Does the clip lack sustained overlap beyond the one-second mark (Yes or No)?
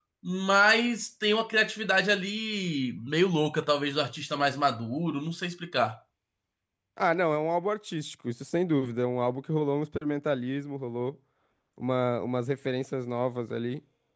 Yes